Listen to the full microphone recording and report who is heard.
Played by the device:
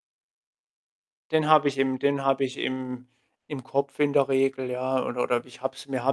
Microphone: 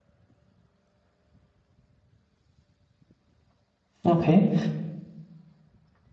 user only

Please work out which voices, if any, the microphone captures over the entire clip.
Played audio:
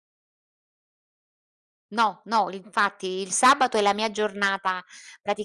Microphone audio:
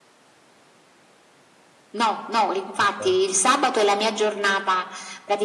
both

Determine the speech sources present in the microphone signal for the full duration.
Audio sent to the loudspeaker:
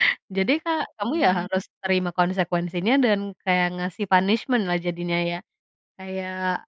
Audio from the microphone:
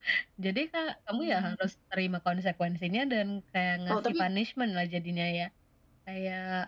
both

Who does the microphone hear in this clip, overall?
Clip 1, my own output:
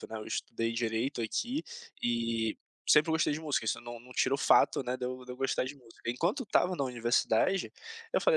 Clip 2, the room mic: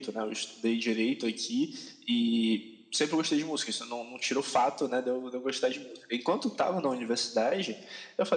echo only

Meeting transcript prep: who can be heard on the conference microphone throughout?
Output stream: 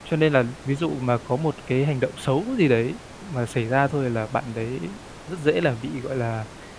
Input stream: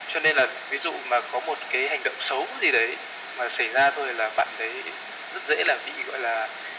echo only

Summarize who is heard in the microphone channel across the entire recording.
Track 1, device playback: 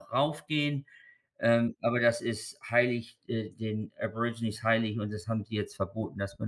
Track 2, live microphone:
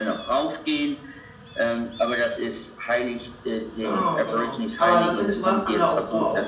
both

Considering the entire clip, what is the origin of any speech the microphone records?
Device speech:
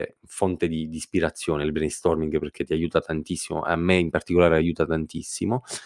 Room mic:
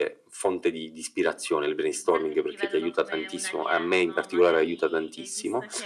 both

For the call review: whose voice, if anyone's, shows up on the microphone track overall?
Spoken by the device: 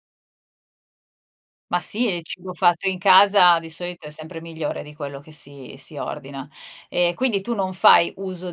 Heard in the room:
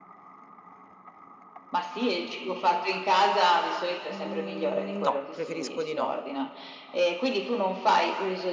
both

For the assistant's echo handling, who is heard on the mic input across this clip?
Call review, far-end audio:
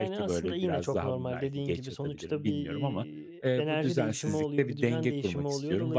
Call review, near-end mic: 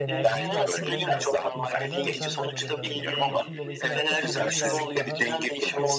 both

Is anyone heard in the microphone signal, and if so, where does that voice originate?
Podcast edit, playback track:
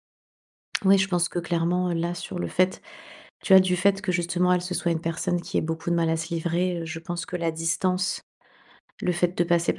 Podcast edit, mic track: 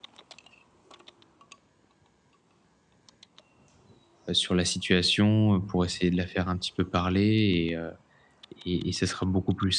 user only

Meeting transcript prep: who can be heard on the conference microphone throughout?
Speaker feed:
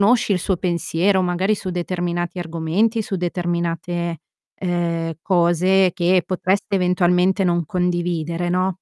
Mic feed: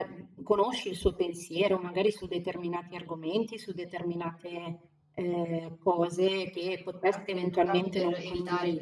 both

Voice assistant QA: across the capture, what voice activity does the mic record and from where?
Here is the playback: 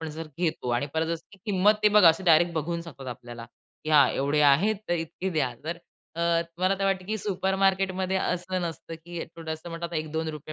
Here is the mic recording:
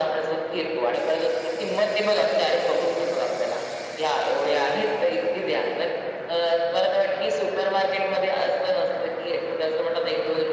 echo only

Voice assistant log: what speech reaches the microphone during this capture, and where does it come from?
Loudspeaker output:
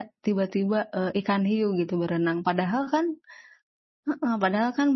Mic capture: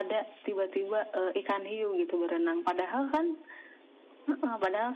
echo only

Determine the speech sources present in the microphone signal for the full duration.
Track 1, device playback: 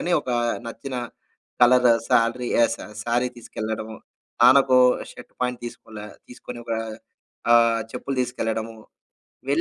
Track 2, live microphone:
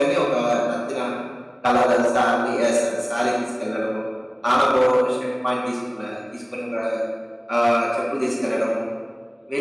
echo only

